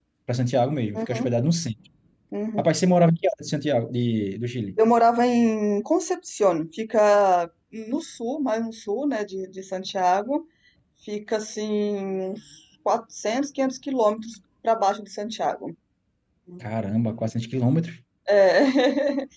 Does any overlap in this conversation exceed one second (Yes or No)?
No